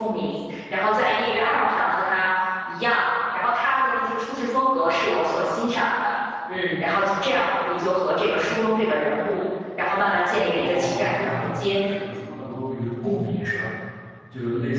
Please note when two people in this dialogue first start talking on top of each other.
10.6 s

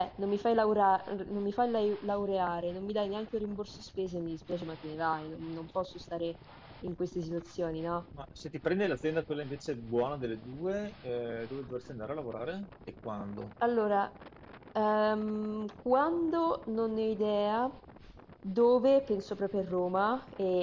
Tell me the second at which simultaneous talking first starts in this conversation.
none

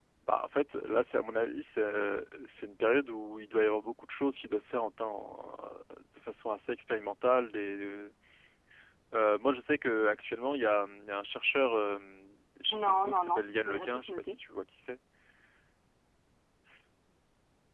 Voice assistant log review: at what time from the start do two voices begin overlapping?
12.8 s

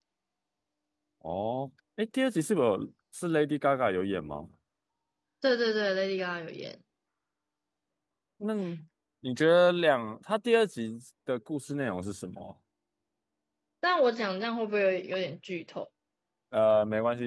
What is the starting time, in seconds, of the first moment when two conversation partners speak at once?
none

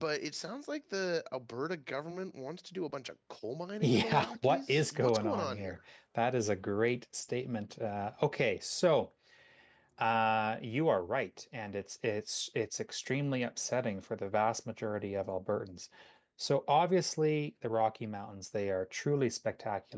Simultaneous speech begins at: 3.8 s

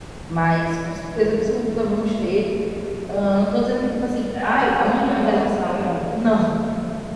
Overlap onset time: 4.3 s

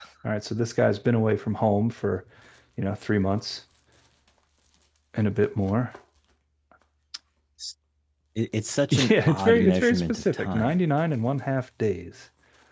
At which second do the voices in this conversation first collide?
8.9 s

